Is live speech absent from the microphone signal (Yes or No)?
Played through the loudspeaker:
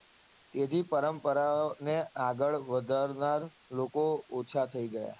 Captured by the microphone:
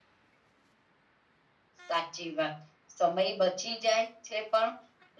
No